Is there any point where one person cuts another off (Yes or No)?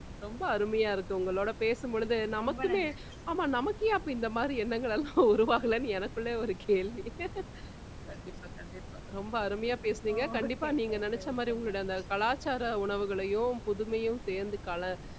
Yes